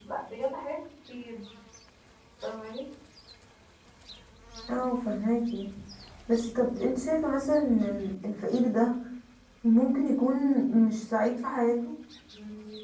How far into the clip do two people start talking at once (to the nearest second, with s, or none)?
none